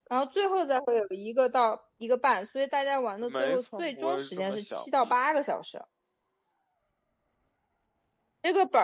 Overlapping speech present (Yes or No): Yes